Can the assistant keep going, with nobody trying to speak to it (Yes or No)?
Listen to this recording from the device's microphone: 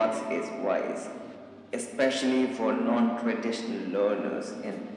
Yes